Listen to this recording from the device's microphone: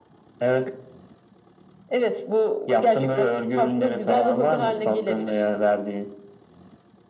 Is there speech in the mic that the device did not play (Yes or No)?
No